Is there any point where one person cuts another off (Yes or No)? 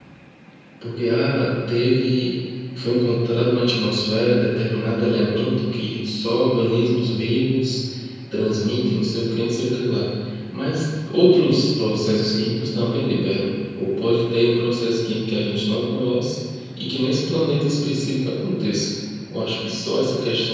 No